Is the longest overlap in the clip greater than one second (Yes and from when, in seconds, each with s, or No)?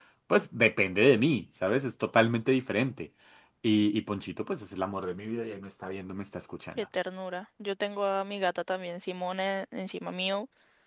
No